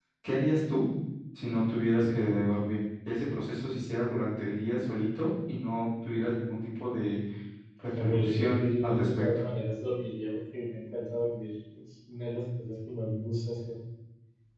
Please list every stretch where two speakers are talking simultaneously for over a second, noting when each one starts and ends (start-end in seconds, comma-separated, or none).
7.9-9.2